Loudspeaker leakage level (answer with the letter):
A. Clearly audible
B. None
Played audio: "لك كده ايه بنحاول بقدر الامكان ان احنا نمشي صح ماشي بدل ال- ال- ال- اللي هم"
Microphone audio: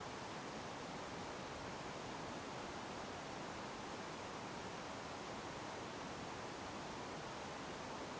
B